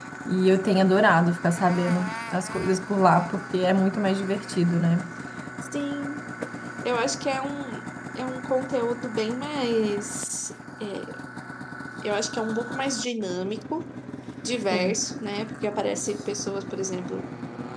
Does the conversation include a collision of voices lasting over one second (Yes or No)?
No